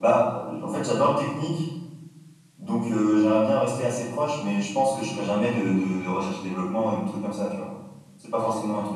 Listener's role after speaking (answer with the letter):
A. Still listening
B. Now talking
A